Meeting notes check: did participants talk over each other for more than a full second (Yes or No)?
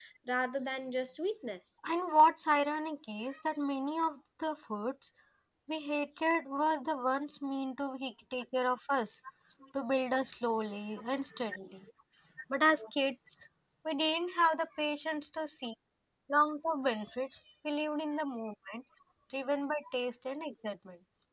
No